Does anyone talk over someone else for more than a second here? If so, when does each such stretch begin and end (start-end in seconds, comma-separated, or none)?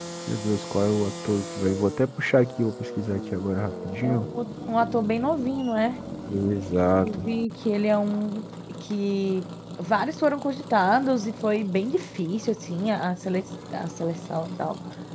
none